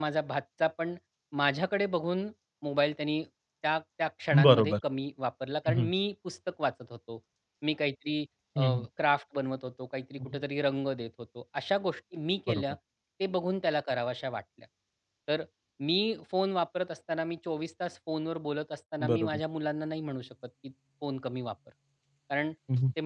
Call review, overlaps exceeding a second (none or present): none